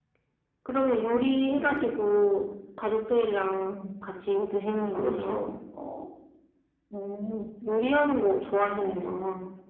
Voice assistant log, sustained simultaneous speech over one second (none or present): none